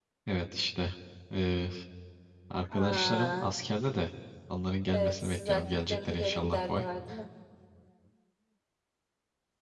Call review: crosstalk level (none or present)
present